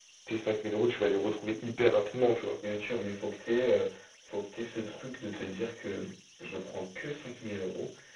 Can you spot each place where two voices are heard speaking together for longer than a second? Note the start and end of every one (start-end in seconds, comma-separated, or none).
none